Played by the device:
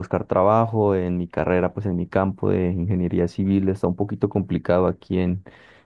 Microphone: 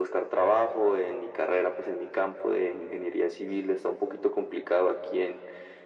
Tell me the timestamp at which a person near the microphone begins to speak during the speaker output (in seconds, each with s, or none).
none